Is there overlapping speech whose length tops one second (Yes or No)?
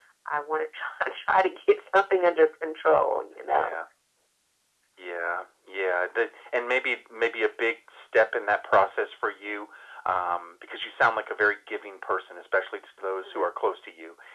No